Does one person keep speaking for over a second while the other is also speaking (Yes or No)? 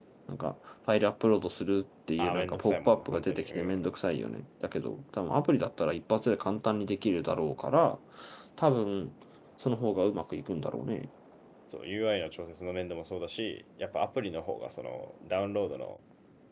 Yes